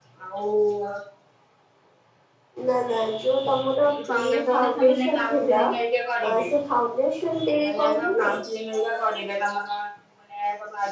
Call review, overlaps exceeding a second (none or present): present